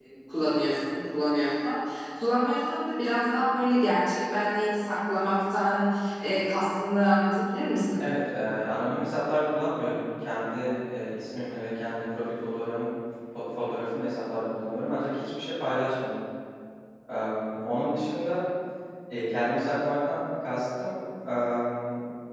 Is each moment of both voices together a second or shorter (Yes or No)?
Yes